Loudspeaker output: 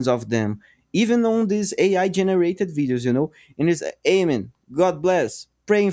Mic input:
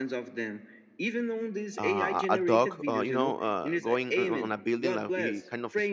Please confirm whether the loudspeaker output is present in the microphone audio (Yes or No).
Yes